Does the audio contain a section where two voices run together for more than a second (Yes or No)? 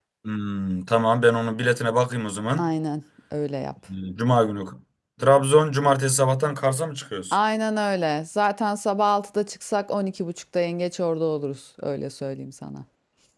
No